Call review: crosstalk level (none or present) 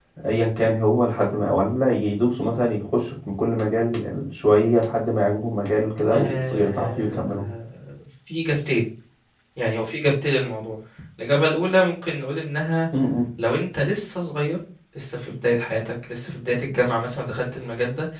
present